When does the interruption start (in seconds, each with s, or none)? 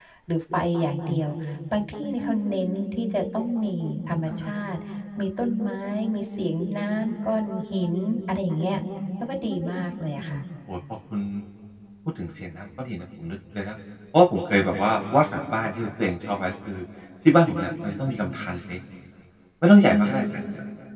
none